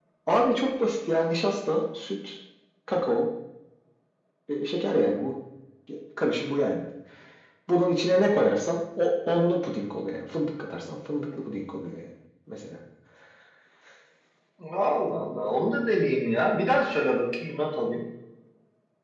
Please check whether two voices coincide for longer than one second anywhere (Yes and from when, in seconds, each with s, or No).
No